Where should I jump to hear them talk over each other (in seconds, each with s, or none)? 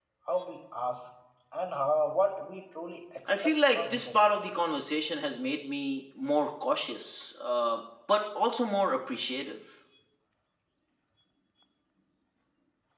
3.3 s